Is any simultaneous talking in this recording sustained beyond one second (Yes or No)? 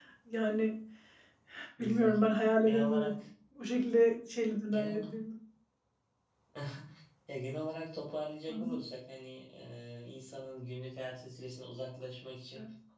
No